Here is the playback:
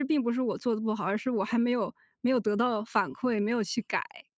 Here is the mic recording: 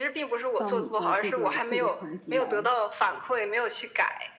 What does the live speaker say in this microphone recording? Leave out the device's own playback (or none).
到你的这个这个层级来